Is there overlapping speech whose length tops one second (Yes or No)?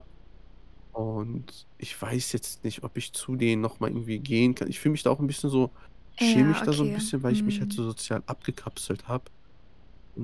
Yes